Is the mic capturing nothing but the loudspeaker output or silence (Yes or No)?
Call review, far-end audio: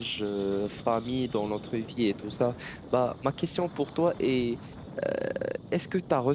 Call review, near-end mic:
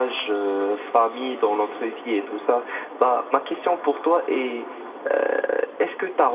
Yes